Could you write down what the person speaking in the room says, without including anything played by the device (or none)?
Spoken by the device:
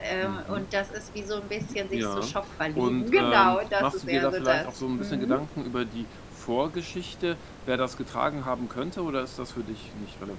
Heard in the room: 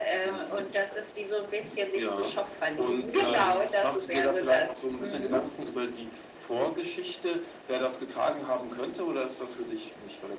none